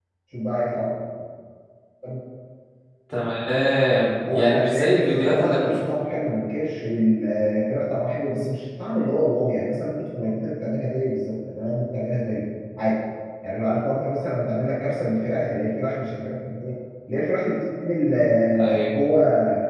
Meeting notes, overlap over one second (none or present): present